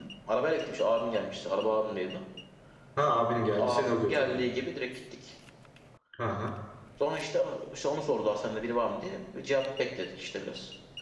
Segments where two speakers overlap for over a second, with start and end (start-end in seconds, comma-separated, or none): 3.0-4.4